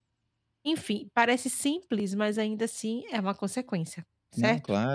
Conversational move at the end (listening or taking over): taking over